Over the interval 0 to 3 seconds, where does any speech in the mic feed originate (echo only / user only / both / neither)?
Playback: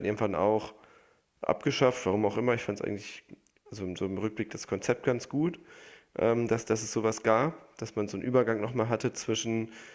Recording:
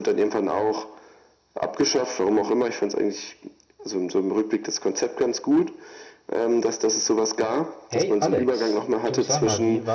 echo only